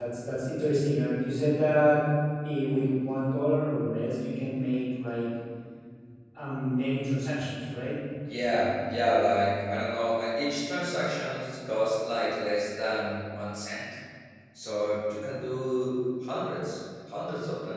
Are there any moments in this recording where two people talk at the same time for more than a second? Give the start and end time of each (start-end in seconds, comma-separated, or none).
none